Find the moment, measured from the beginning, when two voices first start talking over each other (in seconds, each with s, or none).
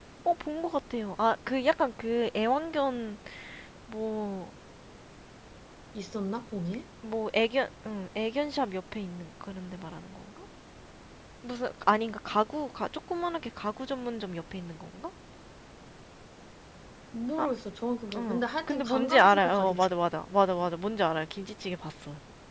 18.2 s